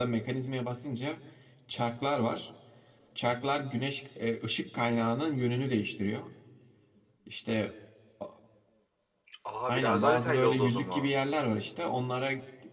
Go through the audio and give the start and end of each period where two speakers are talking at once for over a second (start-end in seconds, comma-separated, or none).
9.7-11.1